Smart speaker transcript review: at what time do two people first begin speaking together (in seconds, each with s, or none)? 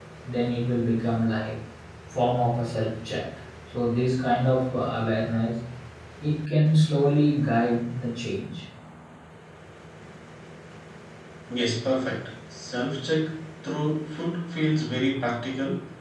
none